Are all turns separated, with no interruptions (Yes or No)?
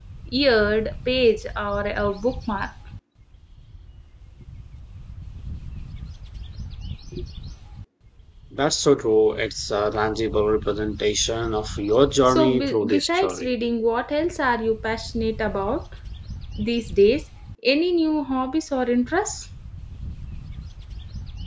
No